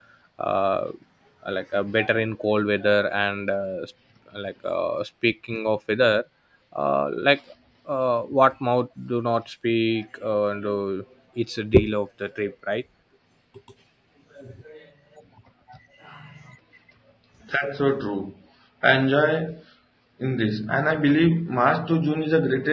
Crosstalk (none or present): none